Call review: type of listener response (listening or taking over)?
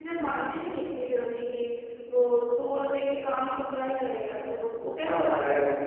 taking over